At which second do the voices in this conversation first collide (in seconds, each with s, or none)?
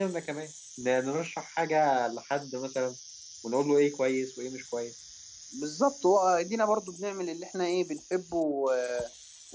none